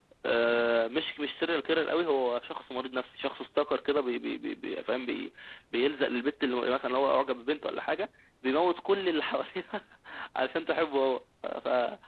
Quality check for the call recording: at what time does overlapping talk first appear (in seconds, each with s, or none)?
none